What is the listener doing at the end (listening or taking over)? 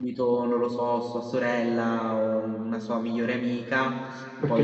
listening